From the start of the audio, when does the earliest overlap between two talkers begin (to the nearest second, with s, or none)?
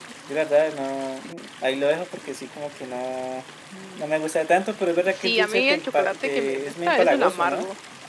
5 s